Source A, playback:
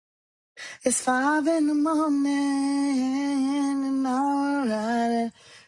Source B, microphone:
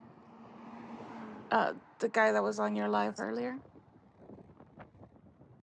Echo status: none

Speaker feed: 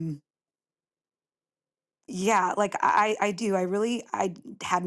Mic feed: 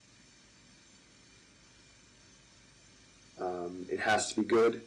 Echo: none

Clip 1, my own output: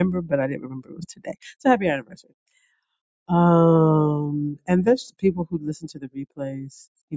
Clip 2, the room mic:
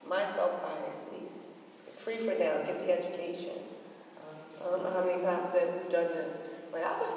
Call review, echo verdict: none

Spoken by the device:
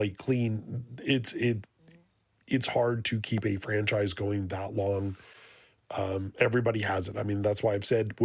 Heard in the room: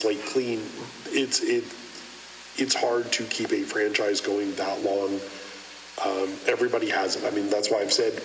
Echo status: present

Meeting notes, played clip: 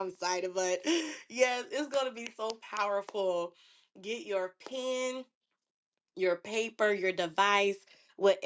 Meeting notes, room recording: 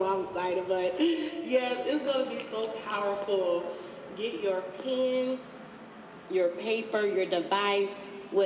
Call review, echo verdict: present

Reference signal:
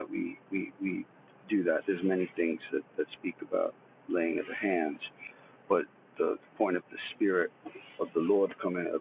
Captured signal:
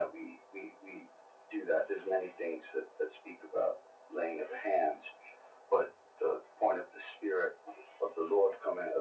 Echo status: present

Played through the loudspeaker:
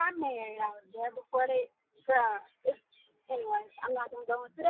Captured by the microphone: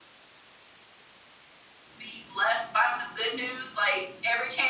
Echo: none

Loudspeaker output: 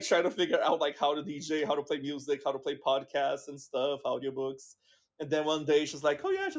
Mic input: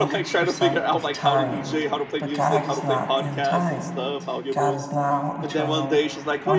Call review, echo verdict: present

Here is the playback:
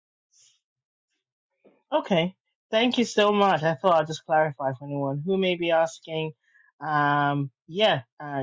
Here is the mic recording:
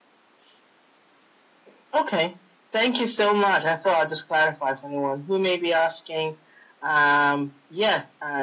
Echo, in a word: present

